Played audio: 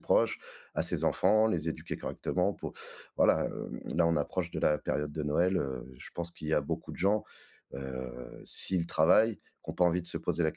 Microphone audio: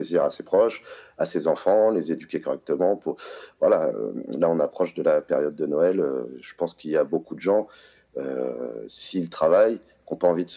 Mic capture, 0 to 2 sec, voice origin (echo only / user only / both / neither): echo only